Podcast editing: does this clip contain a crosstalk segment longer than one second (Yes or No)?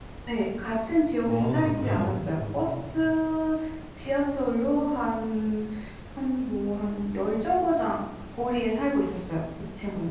Yes